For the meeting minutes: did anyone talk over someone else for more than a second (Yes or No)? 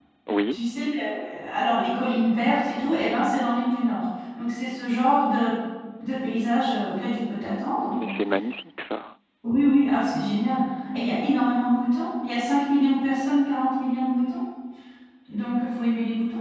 No